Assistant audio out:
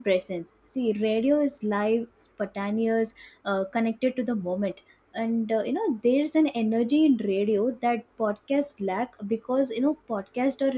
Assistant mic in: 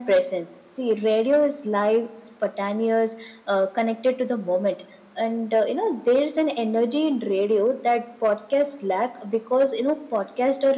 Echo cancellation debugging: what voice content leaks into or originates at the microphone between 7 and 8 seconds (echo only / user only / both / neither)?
echo only